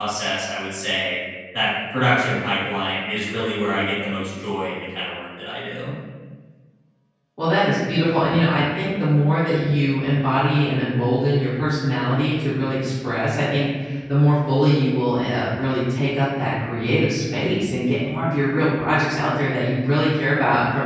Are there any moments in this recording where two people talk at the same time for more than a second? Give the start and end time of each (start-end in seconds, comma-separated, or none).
none